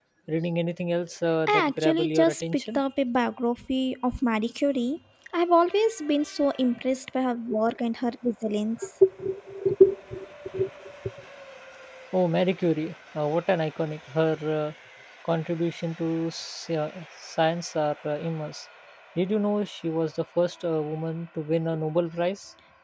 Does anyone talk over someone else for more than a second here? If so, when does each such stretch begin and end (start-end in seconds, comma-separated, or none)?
1.5-2.8